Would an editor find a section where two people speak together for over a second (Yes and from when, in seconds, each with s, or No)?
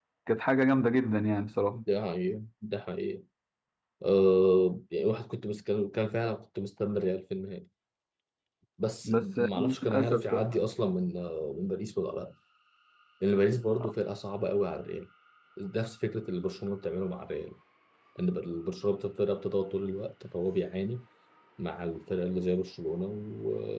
Yes, from 9.1 s